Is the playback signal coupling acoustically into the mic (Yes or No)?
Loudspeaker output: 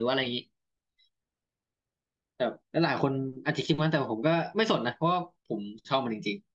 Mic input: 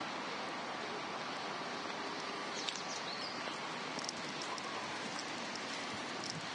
No